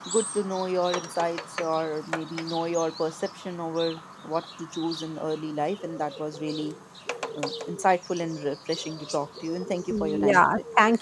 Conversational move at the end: taking over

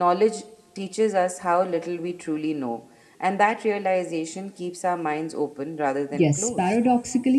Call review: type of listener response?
taking over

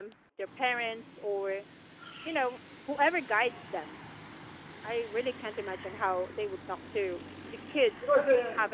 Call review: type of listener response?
taking over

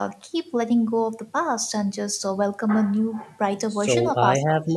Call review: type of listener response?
taking over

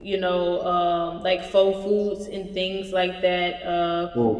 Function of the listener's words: listening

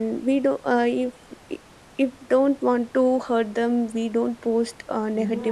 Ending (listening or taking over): taking over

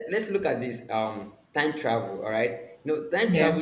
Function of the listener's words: listening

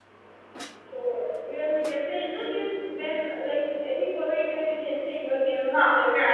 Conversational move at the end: taking over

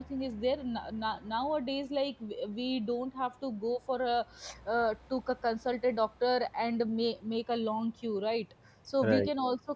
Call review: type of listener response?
listening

